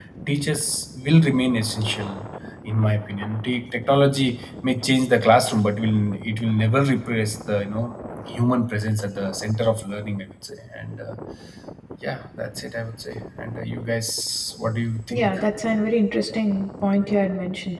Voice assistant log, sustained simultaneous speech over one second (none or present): none